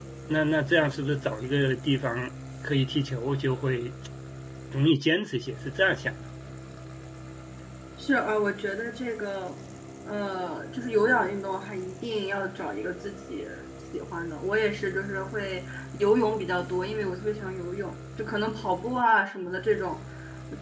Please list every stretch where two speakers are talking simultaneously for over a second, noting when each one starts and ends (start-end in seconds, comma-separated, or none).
none